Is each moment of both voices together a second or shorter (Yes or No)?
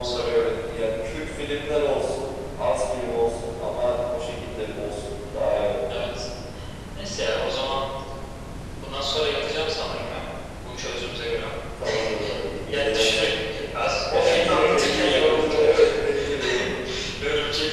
No